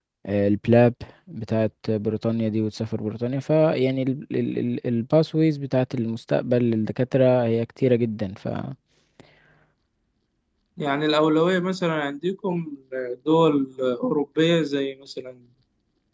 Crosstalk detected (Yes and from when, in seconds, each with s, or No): No